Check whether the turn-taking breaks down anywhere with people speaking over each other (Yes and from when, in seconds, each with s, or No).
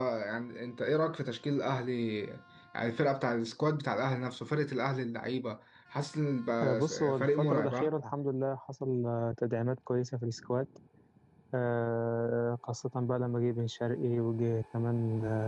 Yes, from 6.6 s